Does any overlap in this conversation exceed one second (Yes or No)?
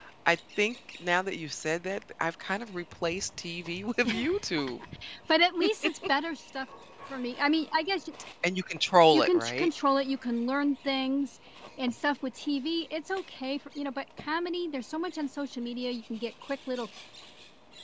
No